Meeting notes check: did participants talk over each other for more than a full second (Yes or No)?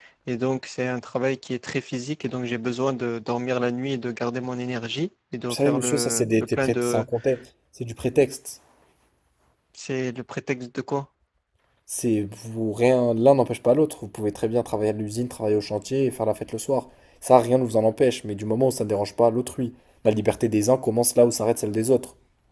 Yes